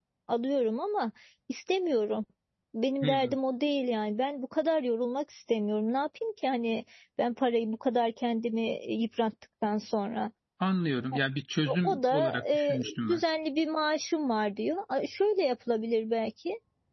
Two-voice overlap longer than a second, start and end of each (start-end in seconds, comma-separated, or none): 11.7-13.2